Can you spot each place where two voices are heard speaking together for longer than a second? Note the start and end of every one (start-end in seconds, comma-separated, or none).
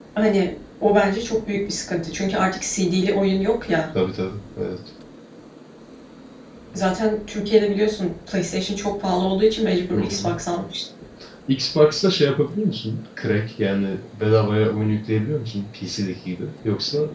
none